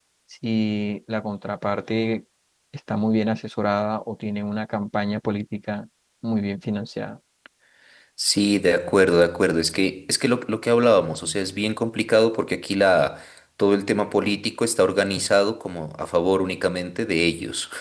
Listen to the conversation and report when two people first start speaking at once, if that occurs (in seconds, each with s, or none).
none